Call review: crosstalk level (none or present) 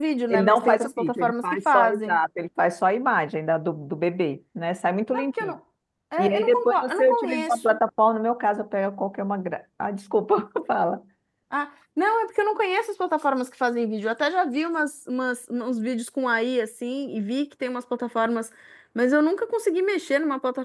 present